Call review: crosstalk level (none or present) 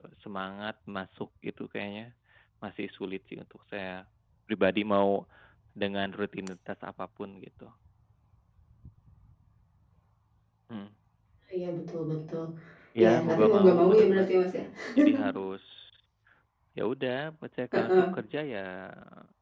present